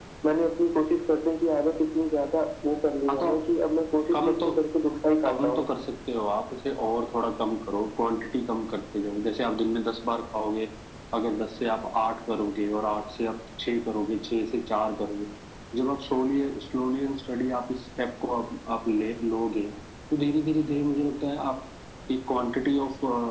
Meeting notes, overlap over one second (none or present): none